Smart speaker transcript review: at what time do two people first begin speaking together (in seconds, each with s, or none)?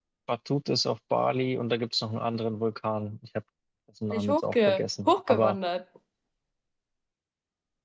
4.1 s